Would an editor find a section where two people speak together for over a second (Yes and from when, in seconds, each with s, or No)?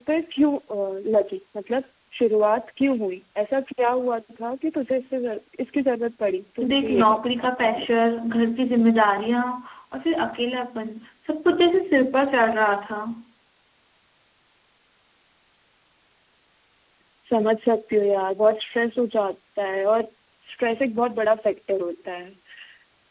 Yes, from 6.6 s